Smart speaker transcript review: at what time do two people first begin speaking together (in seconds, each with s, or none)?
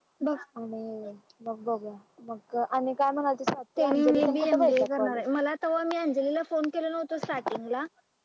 3.8 s